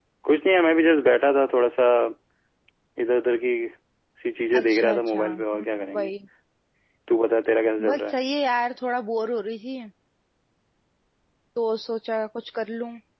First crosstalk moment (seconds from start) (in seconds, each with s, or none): 4.6 s